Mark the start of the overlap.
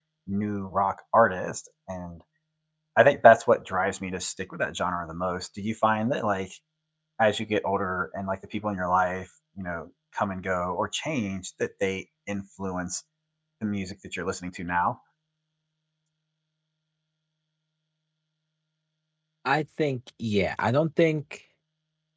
none

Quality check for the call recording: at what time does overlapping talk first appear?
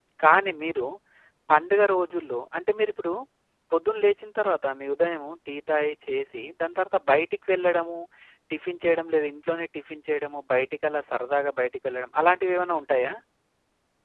none

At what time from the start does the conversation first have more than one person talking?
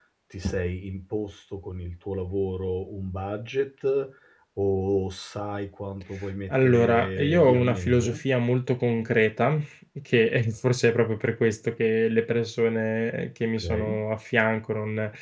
6.5 s

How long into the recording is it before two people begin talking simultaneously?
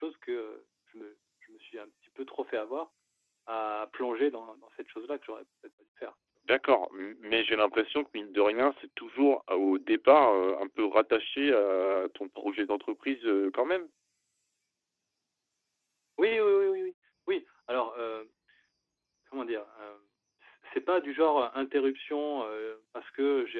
none

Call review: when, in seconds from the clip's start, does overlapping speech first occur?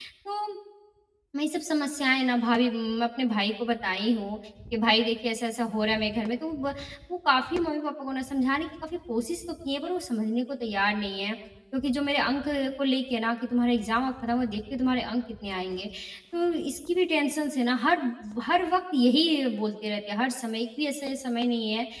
none

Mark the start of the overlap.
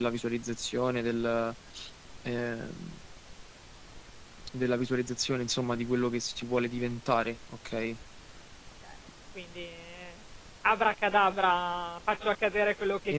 none

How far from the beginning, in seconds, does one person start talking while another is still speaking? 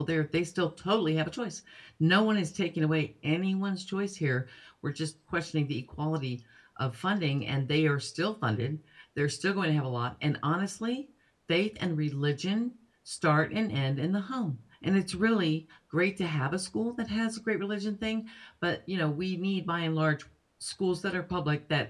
none

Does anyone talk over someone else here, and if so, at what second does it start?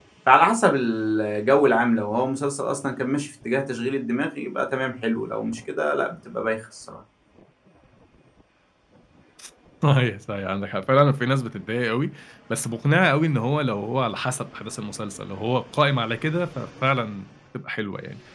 none

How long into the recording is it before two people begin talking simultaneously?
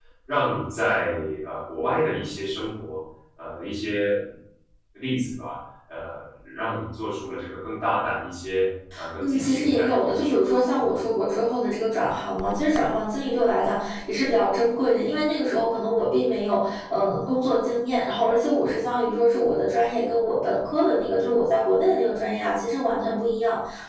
9.2 s

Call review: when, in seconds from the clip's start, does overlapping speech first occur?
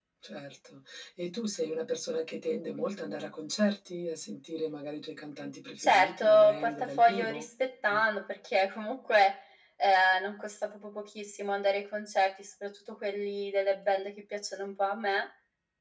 5.8 s

